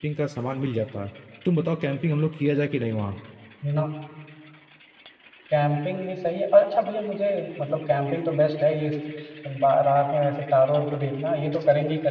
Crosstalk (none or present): none